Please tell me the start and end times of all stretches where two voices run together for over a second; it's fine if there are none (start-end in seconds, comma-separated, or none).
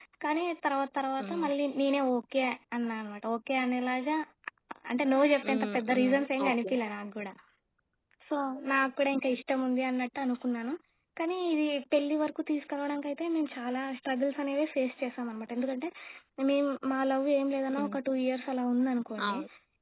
5.5-6.7